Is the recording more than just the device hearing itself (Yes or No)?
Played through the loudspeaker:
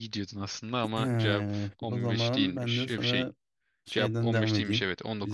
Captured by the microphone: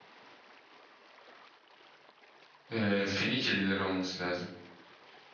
Yes